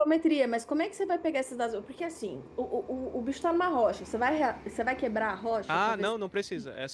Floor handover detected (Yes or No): Yes